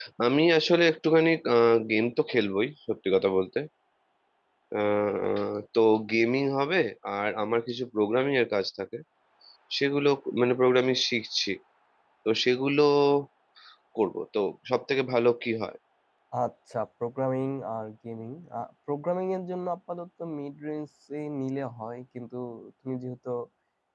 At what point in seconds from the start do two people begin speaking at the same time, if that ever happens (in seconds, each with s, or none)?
none